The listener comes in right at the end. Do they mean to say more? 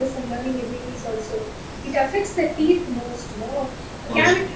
No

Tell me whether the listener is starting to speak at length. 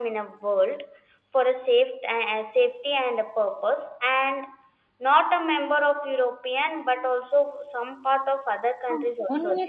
Yes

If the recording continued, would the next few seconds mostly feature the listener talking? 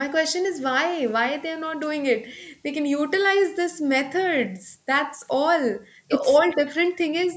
No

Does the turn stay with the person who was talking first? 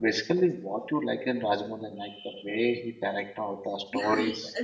No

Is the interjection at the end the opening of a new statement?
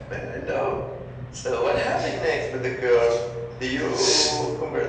No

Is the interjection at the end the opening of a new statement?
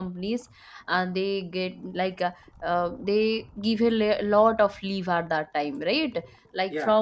No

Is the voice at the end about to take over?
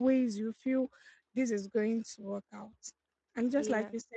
No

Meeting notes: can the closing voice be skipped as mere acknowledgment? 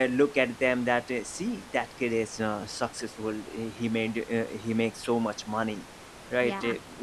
Yes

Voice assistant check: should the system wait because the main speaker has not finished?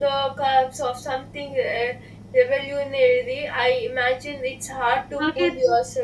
Yes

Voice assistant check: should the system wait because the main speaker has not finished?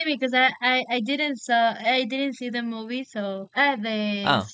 Yes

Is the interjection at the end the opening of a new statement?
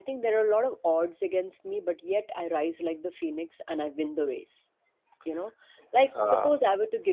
No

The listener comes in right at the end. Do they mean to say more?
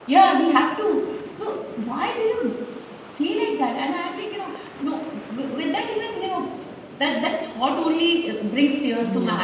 No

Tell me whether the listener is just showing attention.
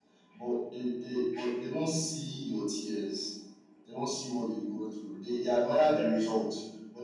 Yes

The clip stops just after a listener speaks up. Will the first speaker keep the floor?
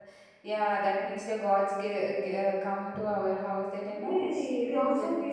No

